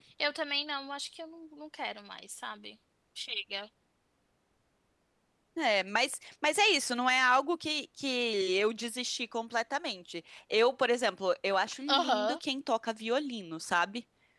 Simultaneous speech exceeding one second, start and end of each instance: none

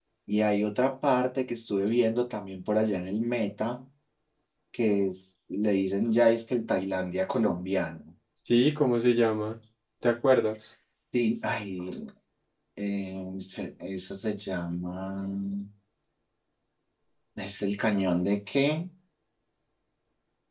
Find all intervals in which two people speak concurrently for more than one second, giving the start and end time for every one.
none

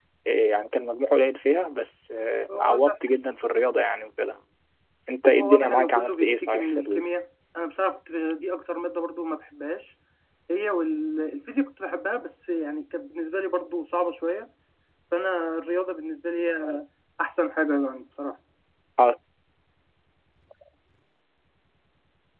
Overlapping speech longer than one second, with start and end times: 5.4-7.0

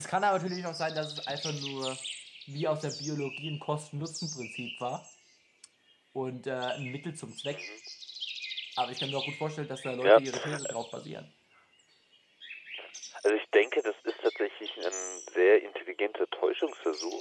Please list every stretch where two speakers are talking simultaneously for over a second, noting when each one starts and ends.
none

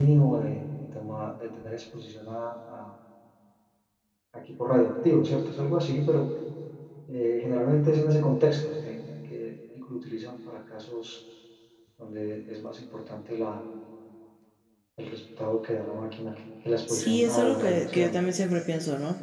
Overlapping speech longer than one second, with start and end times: 16.9-18.2

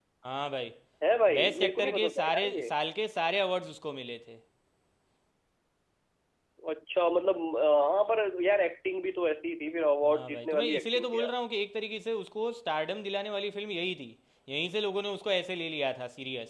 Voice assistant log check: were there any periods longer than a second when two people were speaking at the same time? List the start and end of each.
1.4-2.7, 10.1-11.3

